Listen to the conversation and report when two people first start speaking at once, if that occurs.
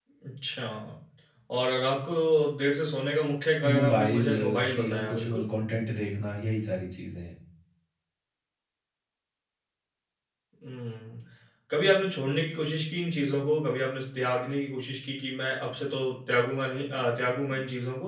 3.6 s

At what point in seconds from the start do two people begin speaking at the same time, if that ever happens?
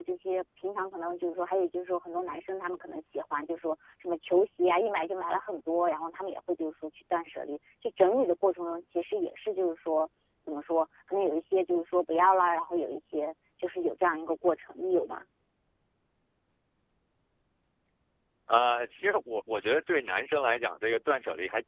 none

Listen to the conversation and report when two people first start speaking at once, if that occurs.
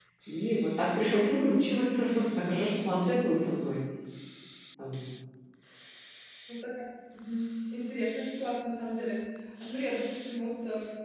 none

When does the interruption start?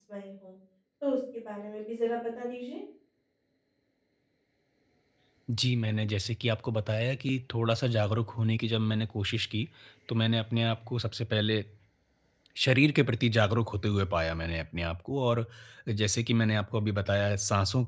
none

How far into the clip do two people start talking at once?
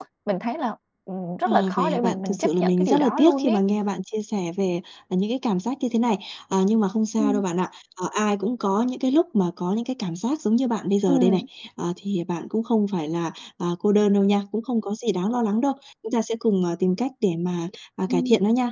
1.4 s

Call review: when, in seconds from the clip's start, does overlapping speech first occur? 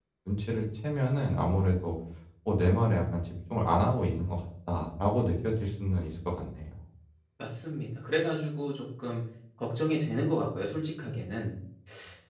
none

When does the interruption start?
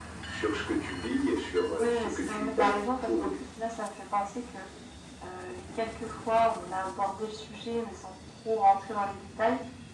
1.8 s

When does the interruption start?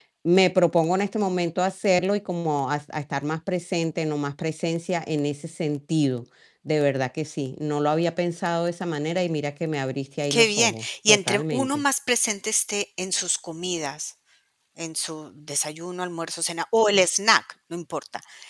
10.2 s

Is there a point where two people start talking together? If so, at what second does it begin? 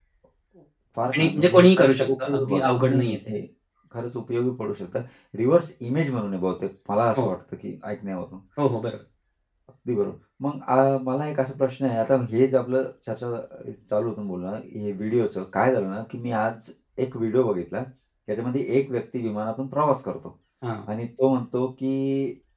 1.1 s

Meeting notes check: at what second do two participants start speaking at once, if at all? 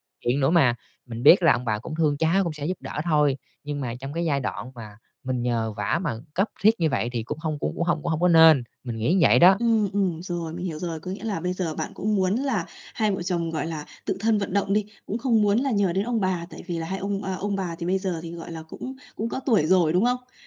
none

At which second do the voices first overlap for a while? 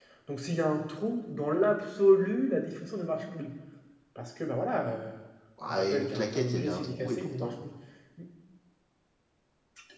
5.7 s

